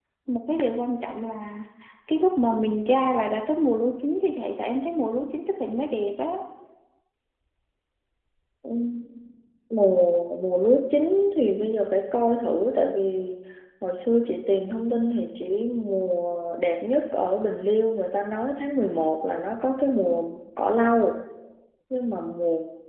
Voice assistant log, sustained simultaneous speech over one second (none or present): none